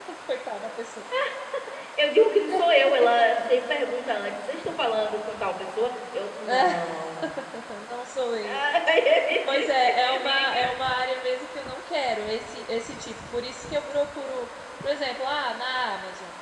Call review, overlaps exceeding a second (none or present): present